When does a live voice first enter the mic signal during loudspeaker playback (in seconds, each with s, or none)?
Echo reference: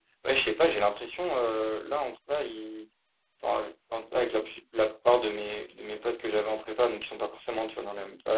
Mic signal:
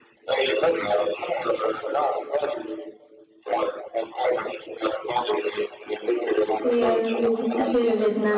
6.6 s